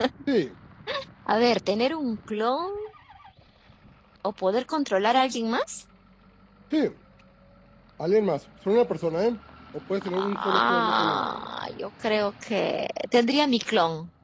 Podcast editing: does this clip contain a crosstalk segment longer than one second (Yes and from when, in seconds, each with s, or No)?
Yes, from 10.0 s